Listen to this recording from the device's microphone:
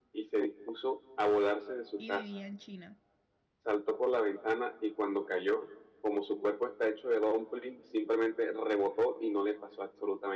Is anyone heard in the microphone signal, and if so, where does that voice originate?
both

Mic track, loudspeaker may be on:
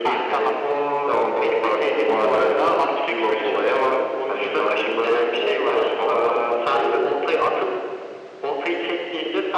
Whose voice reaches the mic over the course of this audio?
both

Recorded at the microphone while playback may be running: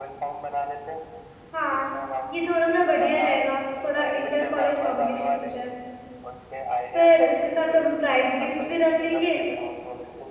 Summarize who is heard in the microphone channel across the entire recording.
both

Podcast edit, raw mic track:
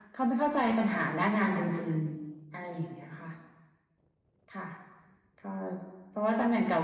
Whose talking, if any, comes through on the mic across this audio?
echo only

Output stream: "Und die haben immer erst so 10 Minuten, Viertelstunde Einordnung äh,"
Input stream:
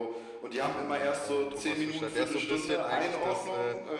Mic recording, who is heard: both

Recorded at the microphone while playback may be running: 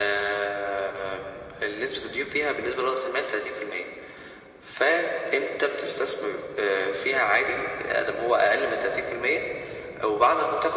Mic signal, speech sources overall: echo only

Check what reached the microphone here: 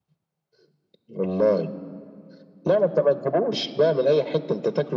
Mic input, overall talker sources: echo only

